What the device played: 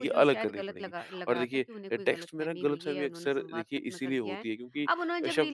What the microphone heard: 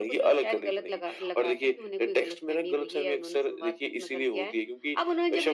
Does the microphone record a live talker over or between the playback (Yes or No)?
No